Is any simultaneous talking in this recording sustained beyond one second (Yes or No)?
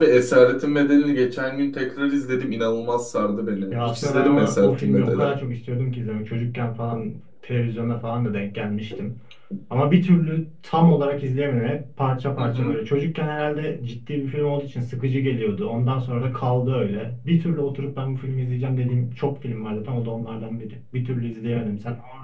Yes